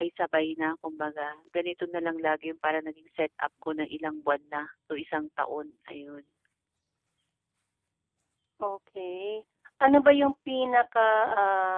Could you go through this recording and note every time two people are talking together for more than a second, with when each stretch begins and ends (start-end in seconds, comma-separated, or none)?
none